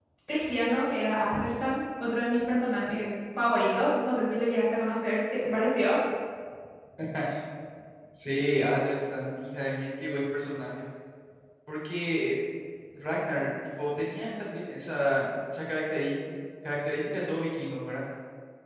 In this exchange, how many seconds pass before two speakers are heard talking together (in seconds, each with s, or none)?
none